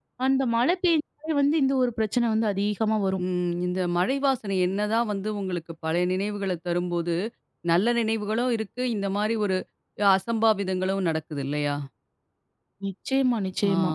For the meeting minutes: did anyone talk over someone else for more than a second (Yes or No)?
No